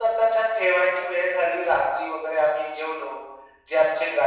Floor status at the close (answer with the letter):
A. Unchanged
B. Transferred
A